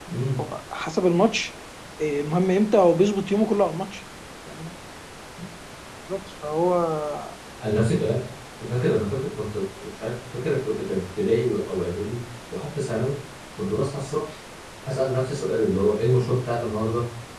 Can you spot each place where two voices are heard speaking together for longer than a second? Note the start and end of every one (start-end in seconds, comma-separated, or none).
none